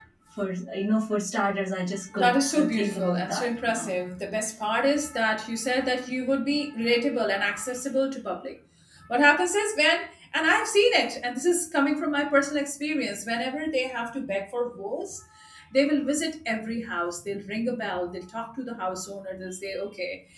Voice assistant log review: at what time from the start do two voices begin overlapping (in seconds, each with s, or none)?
2.1 s